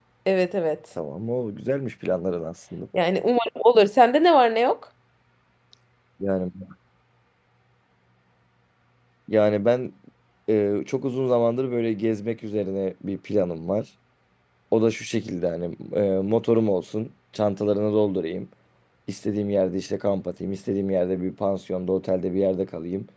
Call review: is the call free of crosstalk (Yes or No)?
Yes